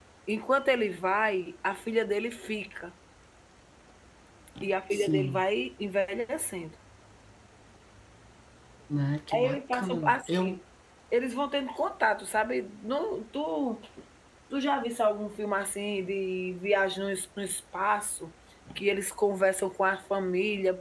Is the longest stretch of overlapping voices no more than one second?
No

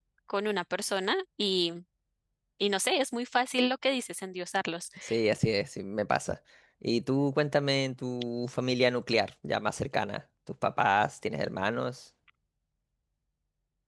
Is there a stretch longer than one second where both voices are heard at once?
No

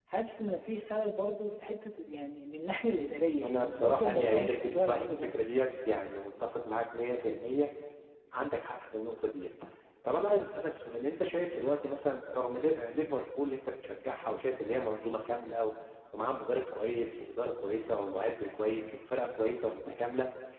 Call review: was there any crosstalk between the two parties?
Yes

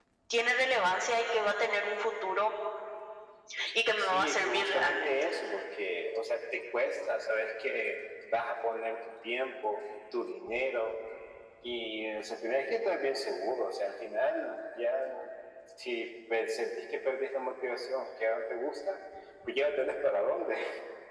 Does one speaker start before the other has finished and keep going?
Yes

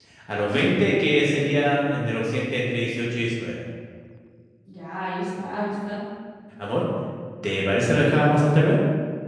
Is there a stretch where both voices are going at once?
Yes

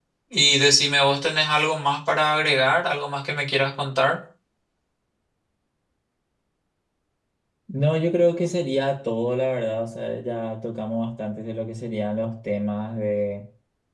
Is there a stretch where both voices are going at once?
No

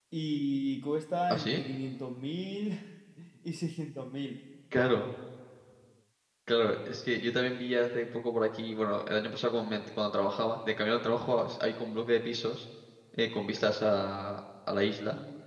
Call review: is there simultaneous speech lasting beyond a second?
No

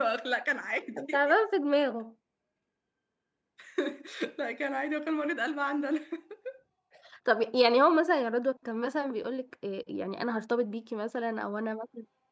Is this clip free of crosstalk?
Yes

